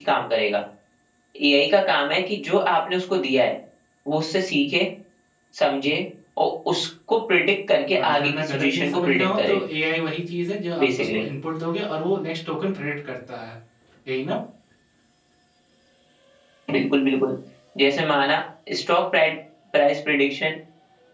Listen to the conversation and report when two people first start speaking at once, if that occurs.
8.0 s

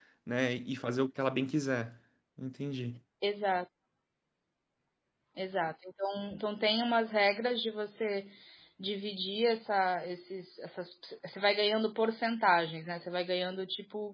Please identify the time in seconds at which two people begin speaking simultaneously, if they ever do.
none

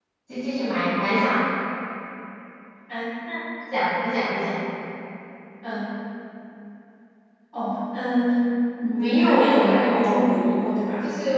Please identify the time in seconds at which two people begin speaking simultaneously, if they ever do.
9.0 s

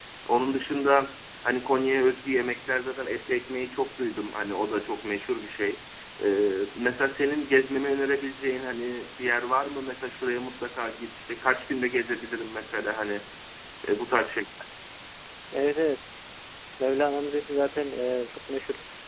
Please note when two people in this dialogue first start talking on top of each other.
none

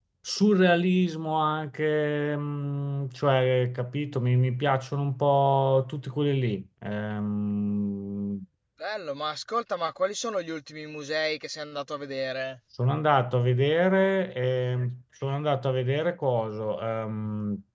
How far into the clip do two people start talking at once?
none

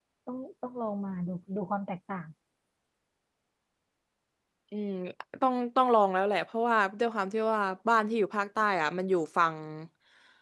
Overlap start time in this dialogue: none

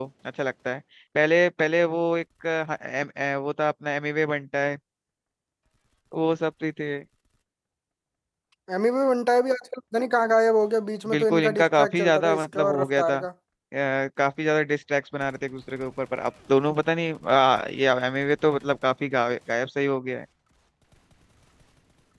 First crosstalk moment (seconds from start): 11.1 s

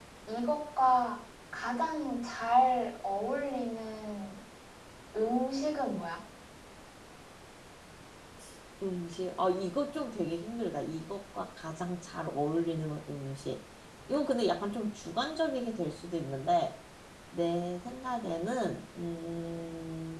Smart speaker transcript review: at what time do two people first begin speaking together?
none

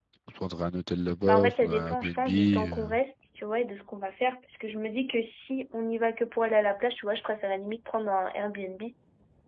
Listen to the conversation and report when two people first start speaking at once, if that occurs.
1.2 s

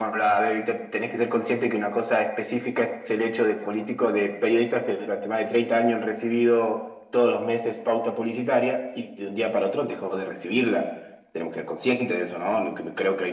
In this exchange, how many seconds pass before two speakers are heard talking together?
none

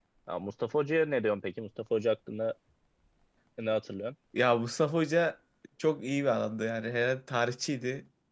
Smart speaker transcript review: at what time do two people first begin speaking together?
none

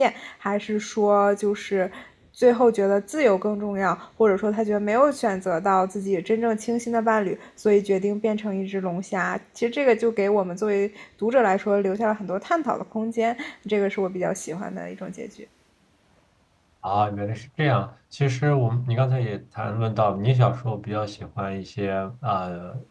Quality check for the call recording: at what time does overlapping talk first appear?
none

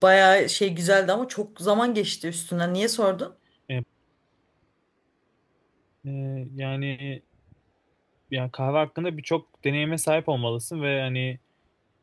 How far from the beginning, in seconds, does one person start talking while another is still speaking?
none

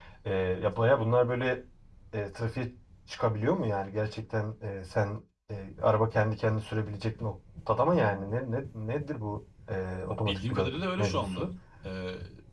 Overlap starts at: 10.3 s

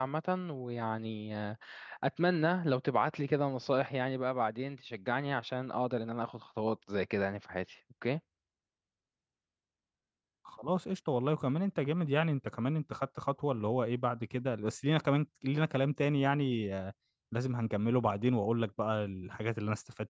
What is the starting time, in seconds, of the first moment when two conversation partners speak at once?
none

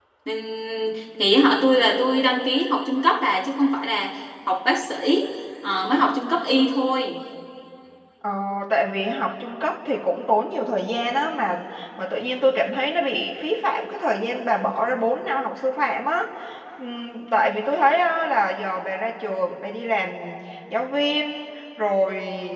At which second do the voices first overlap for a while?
none

